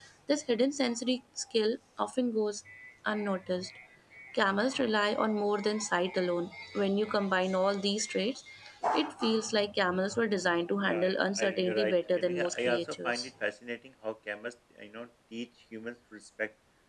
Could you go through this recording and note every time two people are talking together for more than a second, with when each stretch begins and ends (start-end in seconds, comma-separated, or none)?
10.8-13.3